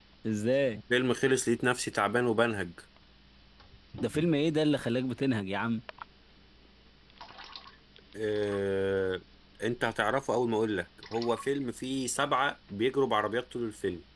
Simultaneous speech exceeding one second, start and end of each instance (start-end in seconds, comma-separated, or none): none